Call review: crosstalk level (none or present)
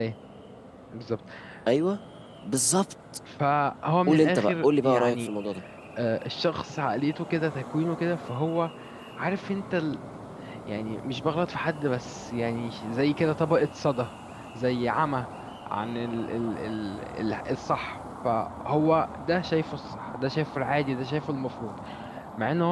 present